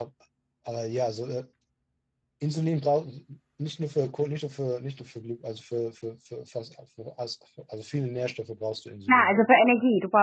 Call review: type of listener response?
taking over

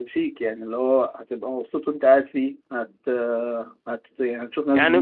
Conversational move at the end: taking over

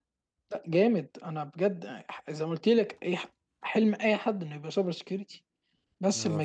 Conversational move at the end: listening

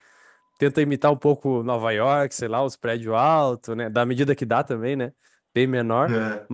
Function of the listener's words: listening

